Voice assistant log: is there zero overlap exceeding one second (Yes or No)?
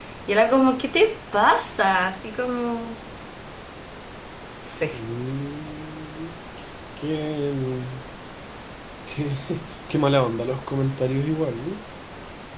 Yes